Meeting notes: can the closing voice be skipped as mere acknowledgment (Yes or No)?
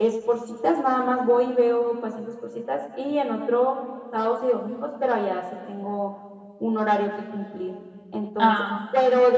Yes